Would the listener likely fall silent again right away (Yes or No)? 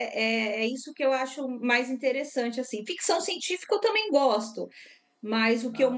Yes